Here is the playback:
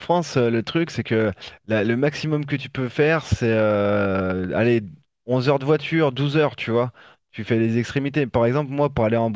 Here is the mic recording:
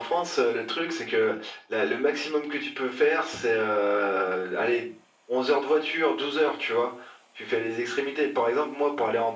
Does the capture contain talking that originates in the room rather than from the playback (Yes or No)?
No